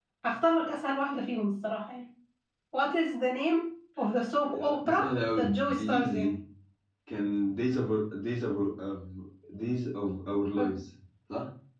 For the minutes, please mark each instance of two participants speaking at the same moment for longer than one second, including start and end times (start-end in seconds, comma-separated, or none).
4.6-6.3